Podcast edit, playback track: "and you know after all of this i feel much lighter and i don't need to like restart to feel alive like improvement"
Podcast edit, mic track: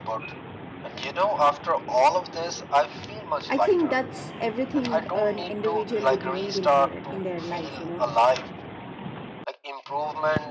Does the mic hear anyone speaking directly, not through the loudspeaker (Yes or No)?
Yes